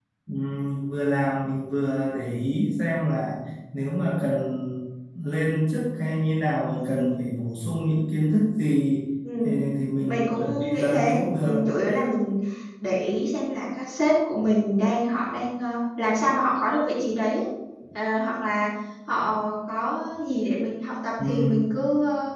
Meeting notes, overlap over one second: present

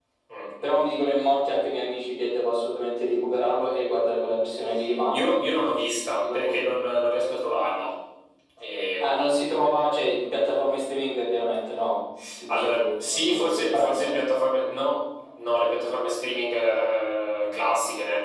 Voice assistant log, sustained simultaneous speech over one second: present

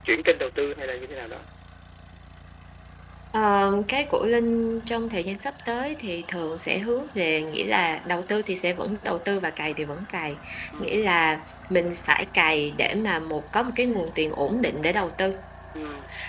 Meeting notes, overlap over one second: none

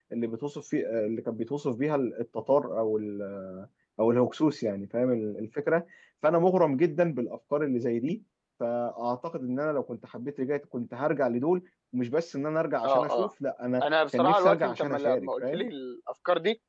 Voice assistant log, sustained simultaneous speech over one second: present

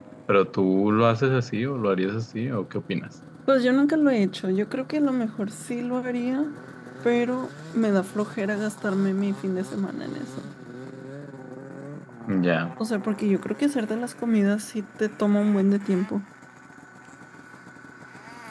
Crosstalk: none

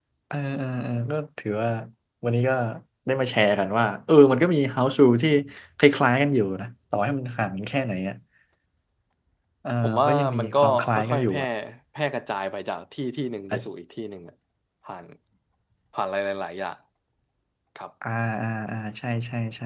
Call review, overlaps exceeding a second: present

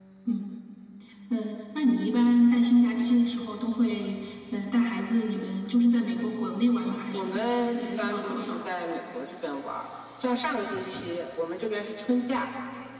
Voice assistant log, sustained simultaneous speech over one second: present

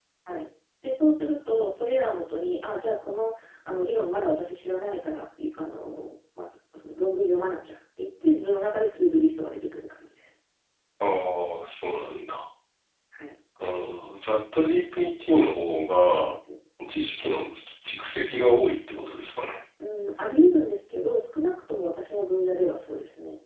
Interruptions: none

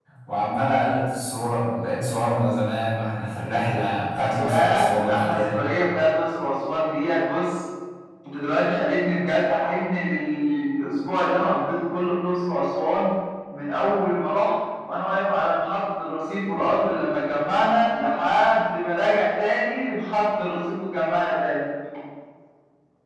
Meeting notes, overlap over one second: present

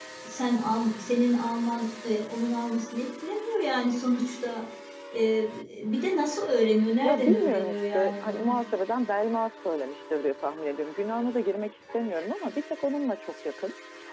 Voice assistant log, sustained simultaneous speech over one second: present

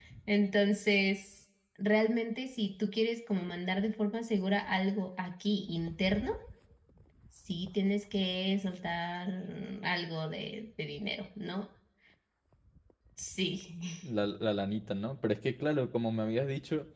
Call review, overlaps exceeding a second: none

